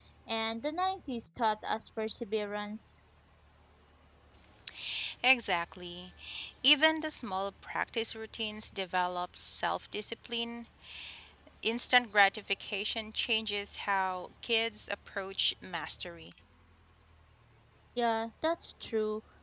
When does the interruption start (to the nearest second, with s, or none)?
none